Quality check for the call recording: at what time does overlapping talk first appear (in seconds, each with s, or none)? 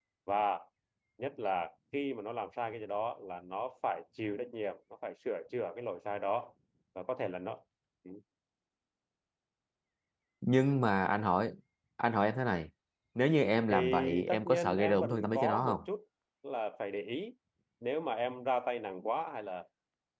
13.7 s